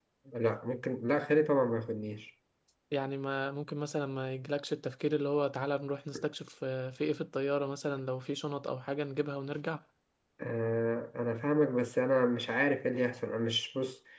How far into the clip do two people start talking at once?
none

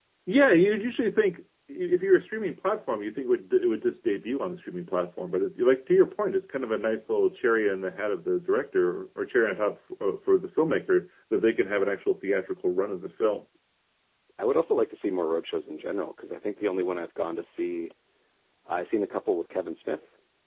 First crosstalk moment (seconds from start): none

